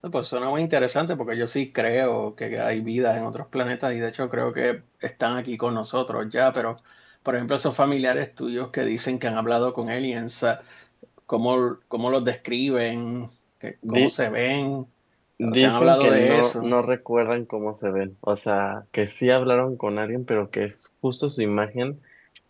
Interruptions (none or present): present